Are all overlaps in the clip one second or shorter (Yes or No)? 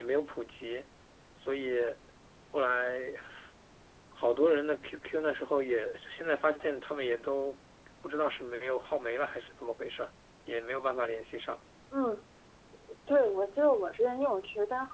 Yes